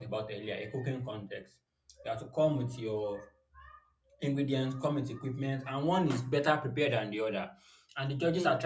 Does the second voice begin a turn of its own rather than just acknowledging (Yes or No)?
No